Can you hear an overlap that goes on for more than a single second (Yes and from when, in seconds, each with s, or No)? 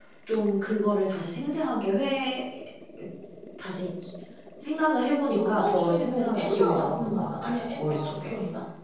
Yes, from 5.3 s